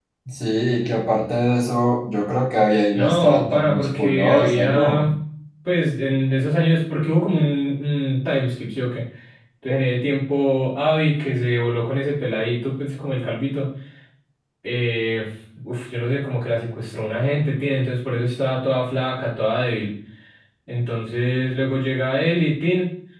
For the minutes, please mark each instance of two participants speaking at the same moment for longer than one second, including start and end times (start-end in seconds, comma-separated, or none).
2.9-5.1